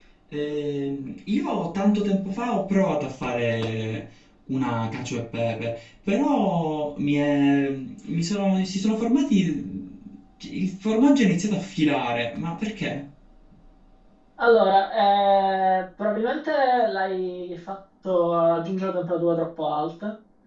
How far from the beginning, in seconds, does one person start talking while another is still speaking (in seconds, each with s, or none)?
none